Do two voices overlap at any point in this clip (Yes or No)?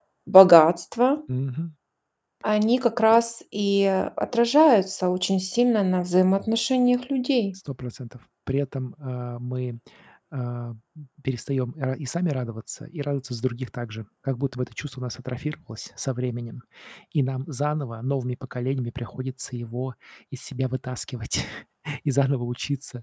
No